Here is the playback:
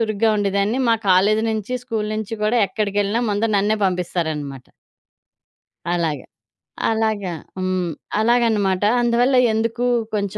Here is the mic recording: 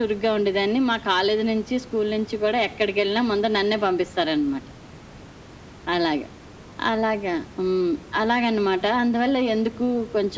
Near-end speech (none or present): none